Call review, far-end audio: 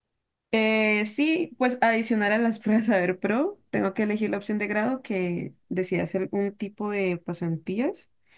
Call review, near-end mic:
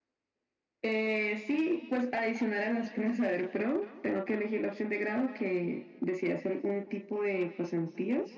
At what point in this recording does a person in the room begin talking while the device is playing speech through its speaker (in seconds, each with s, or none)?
none